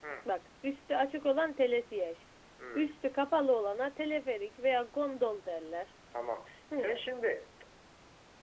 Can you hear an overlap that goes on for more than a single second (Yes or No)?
No